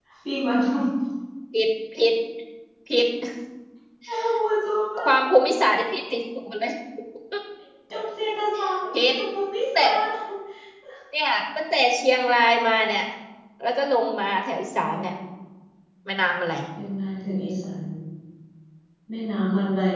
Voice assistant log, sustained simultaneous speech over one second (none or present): none